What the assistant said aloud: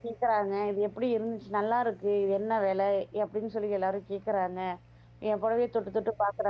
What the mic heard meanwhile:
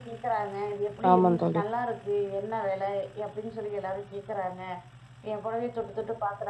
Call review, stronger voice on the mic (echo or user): user